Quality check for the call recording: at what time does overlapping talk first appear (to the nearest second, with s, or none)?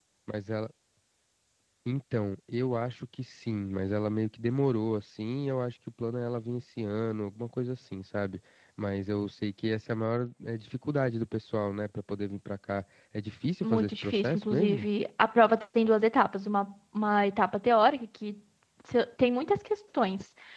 14 s